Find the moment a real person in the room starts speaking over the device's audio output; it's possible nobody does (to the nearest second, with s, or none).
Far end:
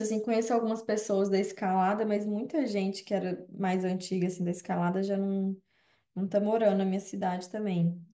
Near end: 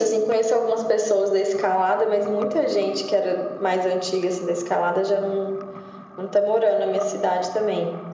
none